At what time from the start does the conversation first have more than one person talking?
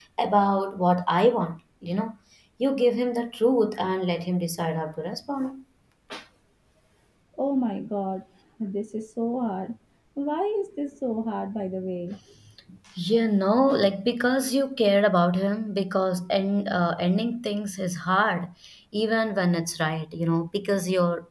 none

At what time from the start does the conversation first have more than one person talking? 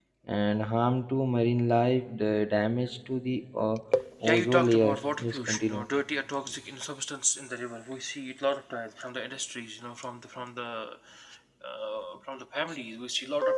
4.2 s

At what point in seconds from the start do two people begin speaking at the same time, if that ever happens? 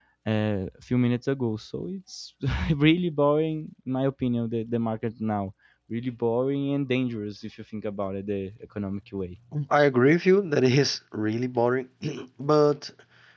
none

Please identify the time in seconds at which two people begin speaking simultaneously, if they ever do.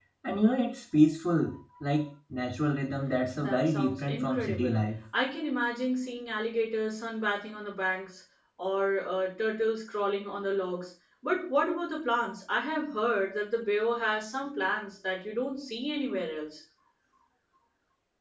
3.4 s

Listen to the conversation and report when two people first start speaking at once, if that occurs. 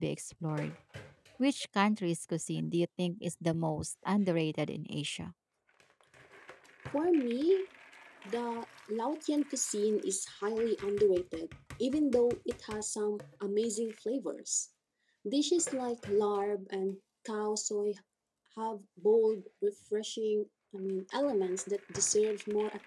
none

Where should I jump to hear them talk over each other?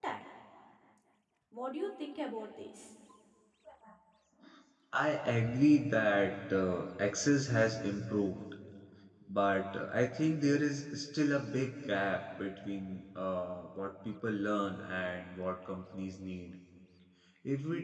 none

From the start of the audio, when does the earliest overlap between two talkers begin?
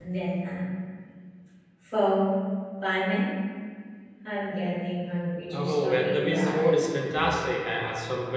5.5 s

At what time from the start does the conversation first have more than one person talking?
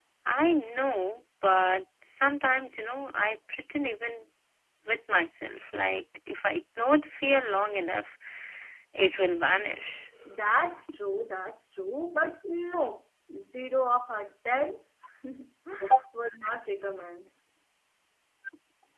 none

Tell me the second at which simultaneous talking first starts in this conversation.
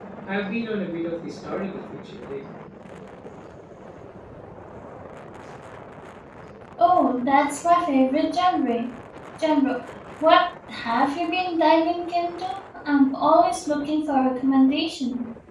none

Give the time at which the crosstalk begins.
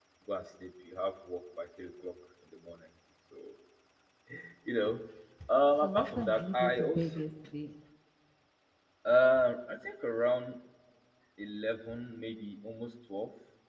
5.8 s

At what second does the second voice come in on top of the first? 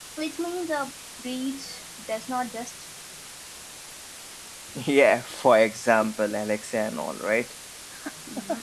none

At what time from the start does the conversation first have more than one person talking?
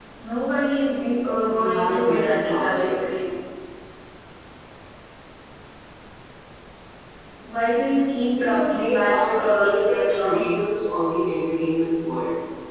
1.6 s

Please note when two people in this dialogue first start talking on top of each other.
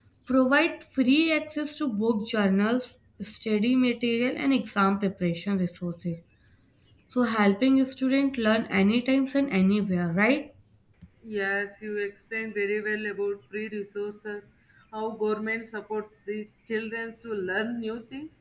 none

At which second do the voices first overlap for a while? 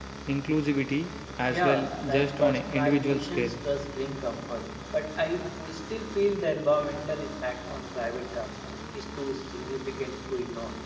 1.5 s

